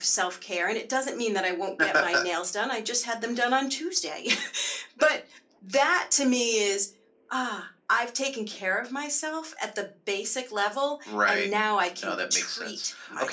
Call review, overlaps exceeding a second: present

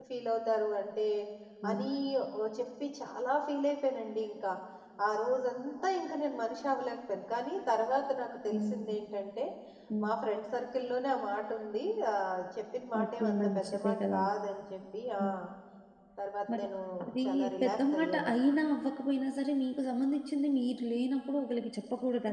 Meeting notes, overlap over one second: present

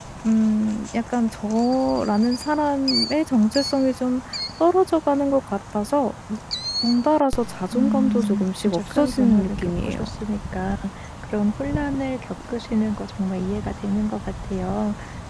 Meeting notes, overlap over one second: present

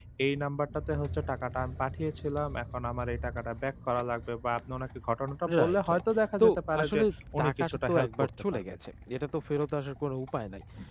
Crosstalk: present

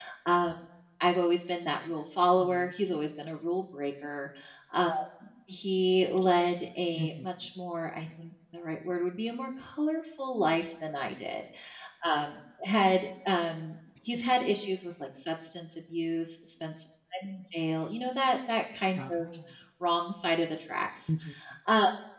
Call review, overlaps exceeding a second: none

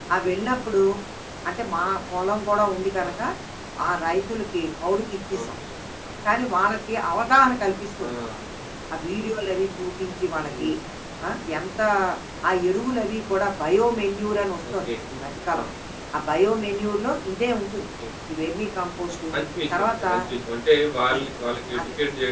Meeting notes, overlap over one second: none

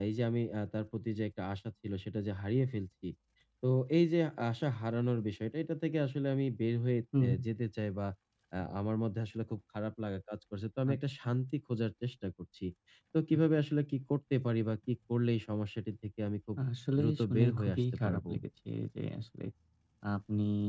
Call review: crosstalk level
present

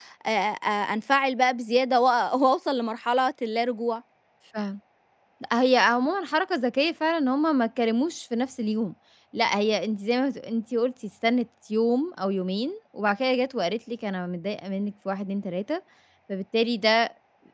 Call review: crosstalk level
none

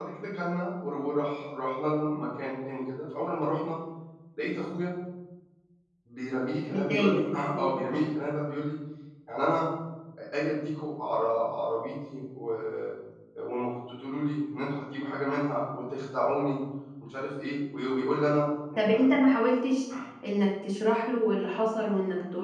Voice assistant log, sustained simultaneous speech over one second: present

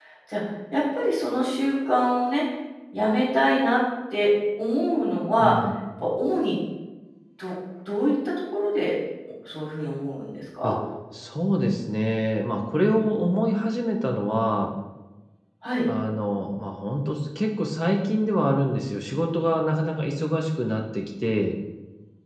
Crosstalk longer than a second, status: none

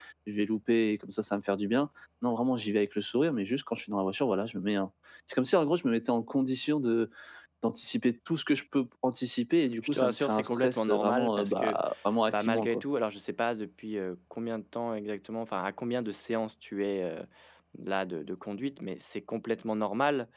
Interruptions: present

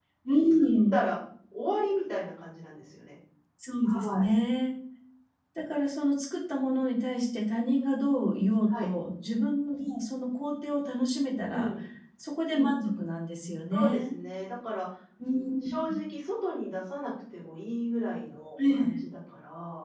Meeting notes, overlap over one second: none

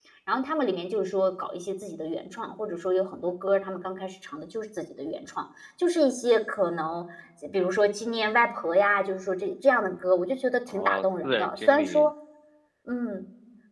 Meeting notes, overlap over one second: present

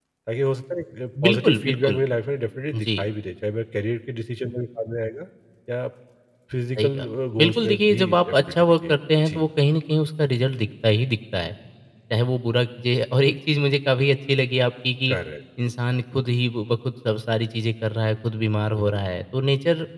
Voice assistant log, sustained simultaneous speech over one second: present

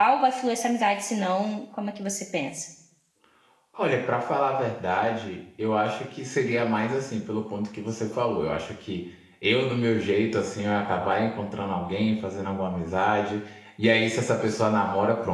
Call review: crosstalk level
none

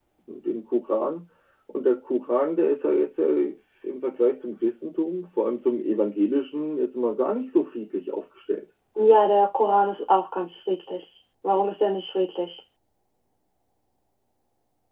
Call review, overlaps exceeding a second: none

